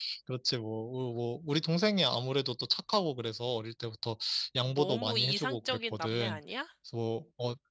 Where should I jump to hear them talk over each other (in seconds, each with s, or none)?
4.7 s